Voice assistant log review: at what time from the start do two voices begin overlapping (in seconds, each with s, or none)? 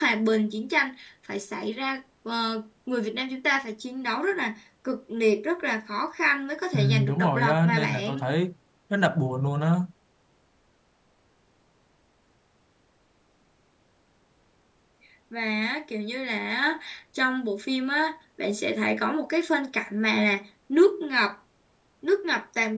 6.7 s